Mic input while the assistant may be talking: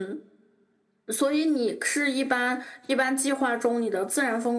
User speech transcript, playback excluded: none

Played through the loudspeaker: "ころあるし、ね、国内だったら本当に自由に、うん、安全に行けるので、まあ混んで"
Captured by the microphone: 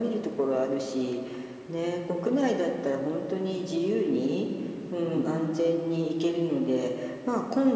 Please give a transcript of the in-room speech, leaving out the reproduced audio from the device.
うん、

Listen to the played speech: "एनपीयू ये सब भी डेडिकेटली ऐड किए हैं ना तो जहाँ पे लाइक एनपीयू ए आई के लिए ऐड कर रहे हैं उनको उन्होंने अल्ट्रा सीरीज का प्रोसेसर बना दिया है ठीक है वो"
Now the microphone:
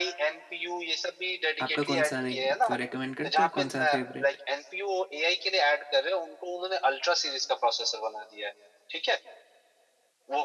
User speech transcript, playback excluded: आपका कौन सा लाइक कोई रेकमेंड करते हो कौन सा फेवरेट

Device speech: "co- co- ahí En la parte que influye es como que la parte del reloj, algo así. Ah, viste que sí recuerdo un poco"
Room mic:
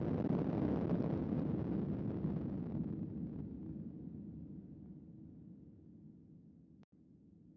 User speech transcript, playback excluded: none

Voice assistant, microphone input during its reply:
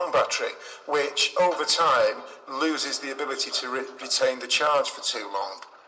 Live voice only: none

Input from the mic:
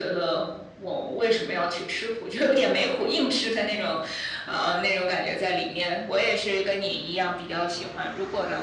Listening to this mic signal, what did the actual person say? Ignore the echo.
none

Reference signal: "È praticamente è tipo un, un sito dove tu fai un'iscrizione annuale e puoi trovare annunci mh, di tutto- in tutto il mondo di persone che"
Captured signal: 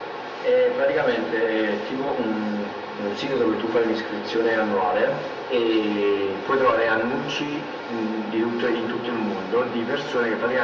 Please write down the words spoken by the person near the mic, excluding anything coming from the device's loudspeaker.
none

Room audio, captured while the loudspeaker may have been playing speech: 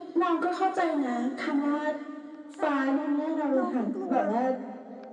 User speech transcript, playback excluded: แต่ว่าน้องก็กลัว

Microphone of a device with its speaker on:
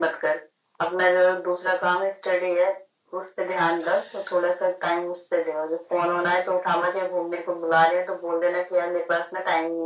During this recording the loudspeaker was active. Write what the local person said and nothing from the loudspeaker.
none

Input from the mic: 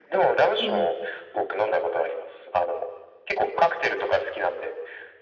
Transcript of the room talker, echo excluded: うん。

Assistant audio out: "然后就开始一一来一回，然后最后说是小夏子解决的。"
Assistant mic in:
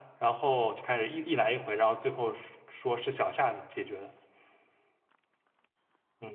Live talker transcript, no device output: none

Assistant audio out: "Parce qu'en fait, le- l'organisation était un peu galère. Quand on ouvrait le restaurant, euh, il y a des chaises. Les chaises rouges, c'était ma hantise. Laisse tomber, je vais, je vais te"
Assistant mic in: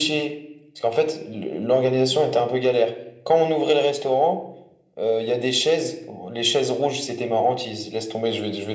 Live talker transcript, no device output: none

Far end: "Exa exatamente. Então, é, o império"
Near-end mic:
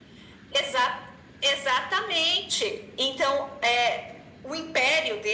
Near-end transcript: none

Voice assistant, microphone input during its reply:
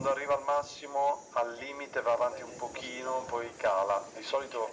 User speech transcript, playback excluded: none

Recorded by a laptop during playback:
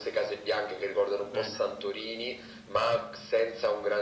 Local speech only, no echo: Bene.

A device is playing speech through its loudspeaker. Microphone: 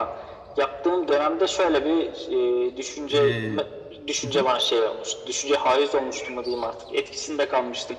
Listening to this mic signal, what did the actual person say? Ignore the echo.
Ee, hı hı.

